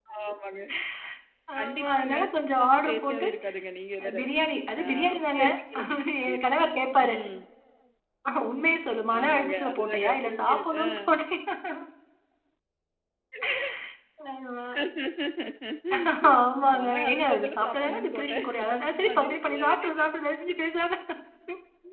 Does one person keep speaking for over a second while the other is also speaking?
Yes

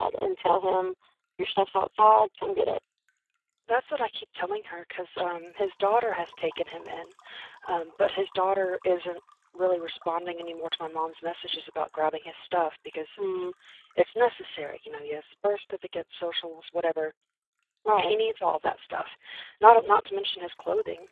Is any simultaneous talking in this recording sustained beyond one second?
No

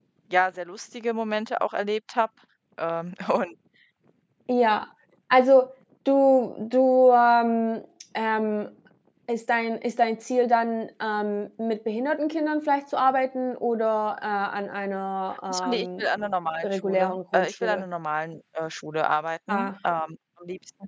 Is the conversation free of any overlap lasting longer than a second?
No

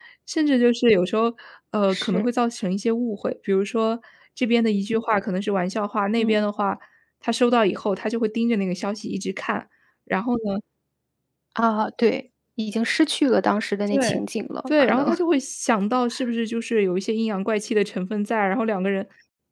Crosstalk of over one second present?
No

